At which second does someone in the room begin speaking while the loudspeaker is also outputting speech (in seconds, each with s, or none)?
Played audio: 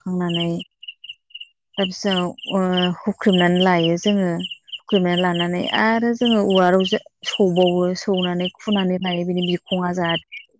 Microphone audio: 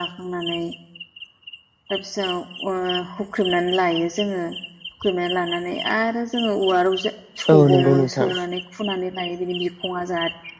7.5 s